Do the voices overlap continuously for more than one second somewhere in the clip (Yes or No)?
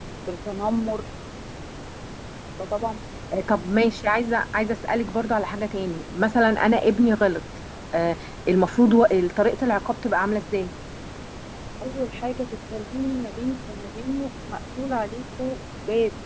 No